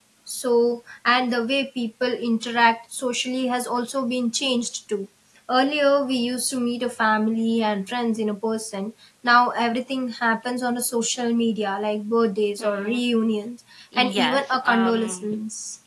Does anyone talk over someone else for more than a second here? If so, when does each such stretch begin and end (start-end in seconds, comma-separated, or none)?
14.0-15.3